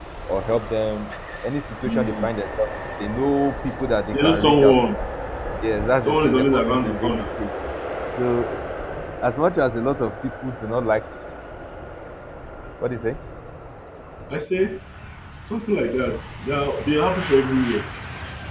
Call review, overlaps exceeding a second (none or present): present